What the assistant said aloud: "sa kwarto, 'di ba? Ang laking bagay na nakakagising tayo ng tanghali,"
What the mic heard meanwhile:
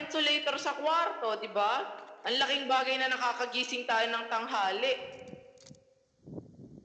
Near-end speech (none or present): none